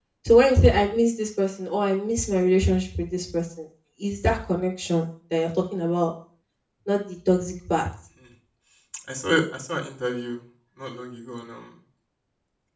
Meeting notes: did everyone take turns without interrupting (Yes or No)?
Yes